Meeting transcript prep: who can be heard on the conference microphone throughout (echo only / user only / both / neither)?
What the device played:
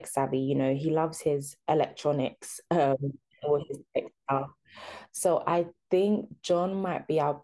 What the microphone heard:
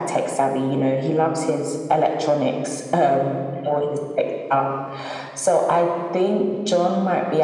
echo only